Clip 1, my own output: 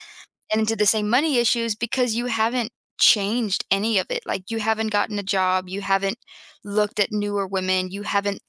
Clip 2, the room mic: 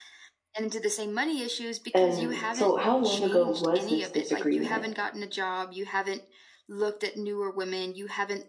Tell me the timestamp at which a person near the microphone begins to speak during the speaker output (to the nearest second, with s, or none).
2 s